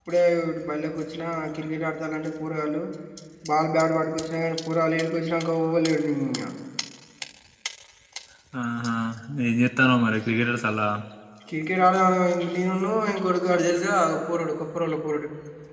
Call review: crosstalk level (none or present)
none